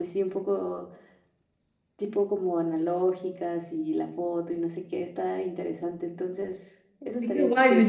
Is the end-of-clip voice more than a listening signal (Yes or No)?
Yes